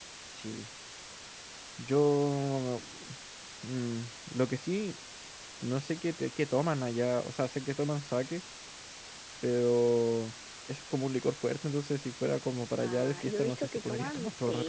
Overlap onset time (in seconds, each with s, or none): 12.8 s